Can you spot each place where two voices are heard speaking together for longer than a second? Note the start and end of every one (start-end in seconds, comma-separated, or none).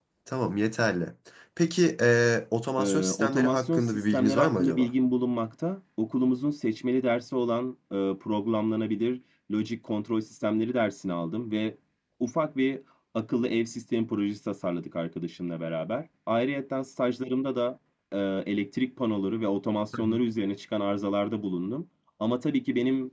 2.8-4.9